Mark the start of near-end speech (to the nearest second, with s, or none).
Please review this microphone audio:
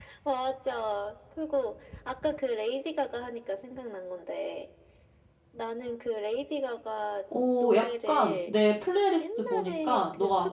7 s